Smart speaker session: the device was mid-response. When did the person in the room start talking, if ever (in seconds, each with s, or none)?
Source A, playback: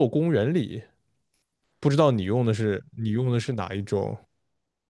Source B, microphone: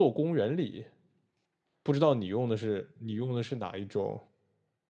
none